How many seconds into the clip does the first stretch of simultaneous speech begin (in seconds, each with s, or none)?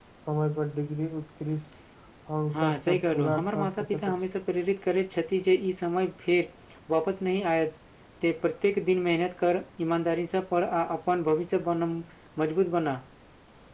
2.5 s